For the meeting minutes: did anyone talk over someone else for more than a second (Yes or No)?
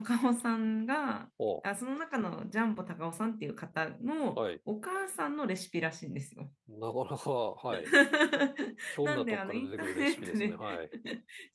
Yes